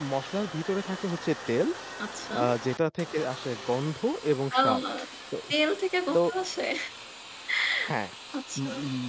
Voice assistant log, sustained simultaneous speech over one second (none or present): none